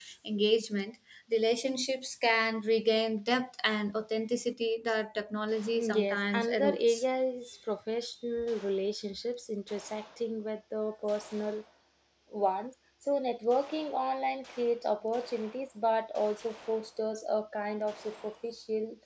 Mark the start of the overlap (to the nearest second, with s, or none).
6 s